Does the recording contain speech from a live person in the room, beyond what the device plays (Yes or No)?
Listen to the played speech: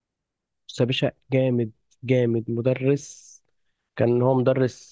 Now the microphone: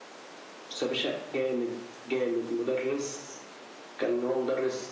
No